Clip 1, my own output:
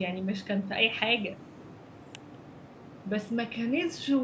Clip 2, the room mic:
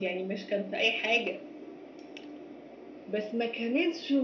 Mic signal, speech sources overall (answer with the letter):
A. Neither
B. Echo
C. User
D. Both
B